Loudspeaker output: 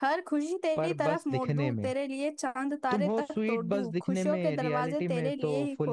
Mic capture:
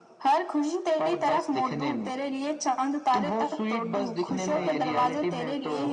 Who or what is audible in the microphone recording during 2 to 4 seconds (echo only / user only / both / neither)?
echo only